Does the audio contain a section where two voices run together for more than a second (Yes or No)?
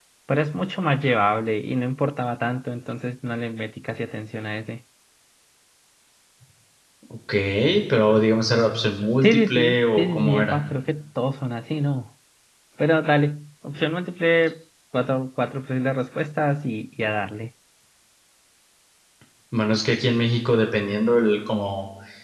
Yes